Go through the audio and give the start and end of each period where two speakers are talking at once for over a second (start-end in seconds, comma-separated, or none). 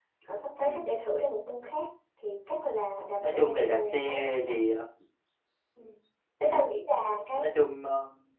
3.2-4.6